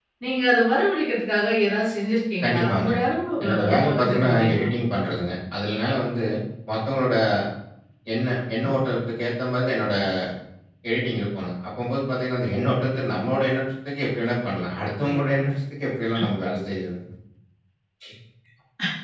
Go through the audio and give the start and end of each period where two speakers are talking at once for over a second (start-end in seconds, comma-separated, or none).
3.4-4.7